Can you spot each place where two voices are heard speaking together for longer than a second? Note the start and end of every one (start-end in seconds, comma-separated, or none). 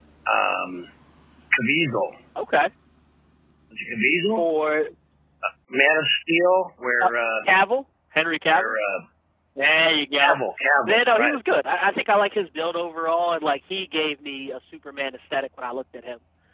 none